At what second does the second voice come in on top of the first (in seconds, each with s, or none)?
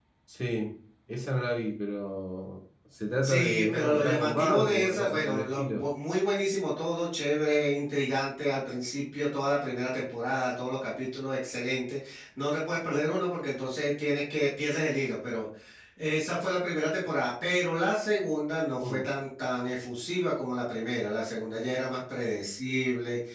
3.2 s